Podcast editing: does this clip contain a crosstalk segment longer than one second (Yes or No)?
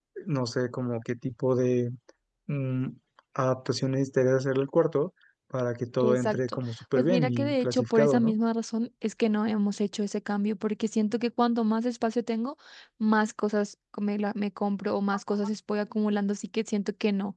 Yes